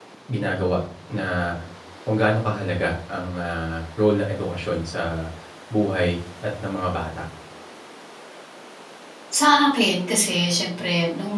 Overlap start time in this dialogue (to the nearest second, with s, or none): none